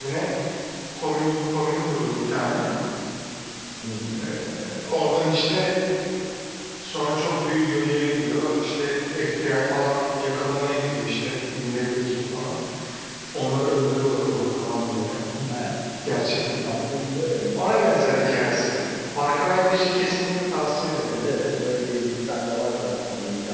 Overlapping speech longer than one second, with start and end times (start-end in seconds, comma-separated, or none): none